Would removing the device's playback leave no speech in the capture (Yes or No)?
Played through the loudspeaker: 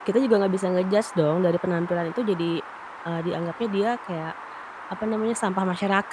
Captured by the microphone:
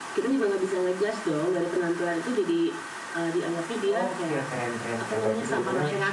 No